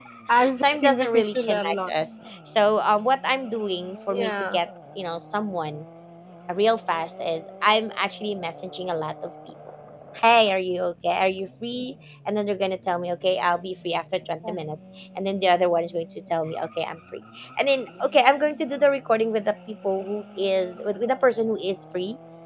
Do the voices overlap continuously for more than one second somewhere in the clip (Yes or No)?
Yes